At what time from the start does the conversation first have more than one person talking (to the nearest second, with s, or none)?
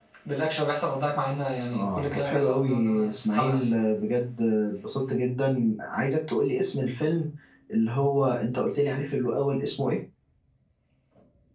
2 s